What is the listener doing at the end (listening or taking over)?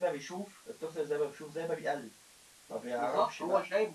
taking over